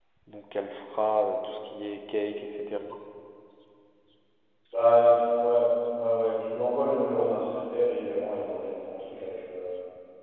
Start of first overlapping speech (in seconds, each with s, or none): none